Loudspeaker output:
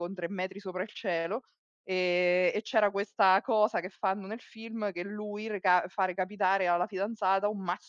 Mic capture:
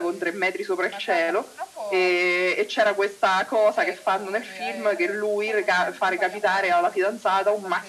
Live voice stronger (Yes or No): No